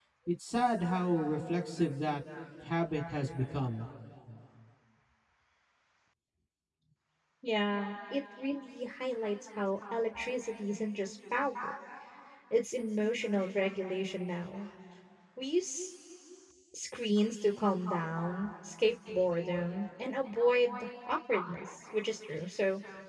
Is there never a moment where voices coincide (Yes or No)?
Yes